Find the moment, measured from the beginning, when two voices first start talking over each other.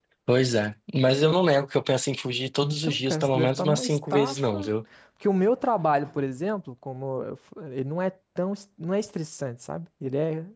2.6 s

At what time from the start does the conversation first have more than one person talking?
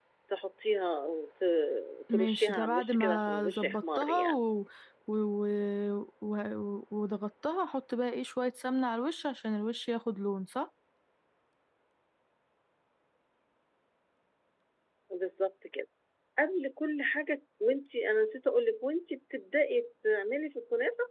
2.1 s

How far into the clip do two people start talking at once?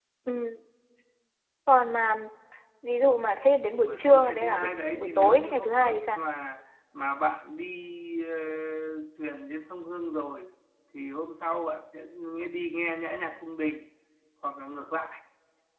3.8 s

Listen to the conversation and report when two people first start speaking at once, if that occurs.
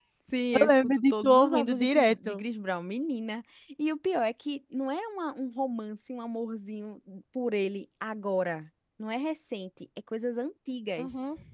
0.6 s

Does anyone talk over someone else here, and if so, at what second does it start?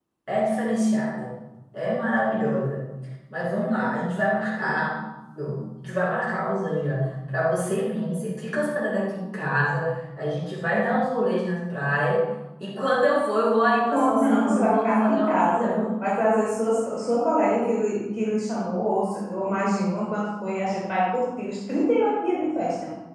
13.9 s

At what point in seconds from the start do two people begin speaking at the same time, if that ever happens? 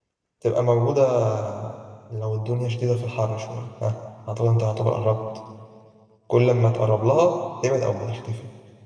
none

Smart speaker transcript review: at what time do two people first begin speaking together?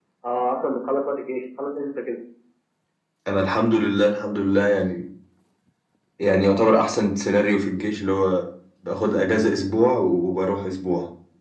none

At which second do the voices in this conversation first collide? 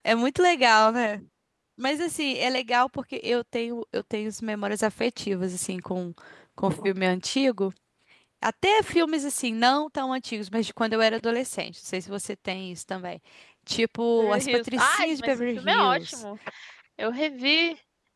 14.2 s

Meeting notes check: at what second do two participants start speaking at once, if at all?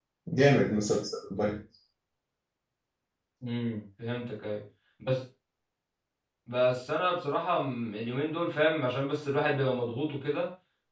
none

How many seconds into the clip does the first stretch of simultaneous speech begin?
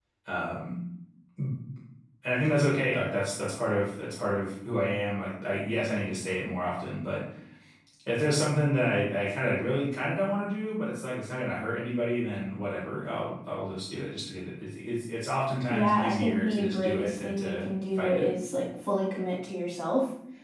15.7 s

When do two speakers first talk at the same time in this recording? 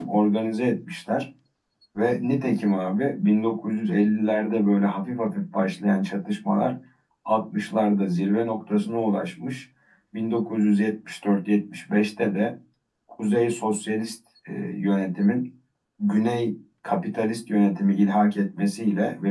none

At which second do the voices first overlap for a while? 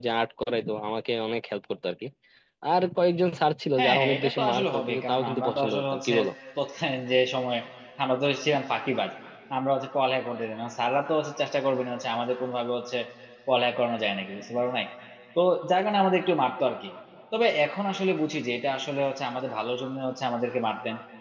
3.8 s

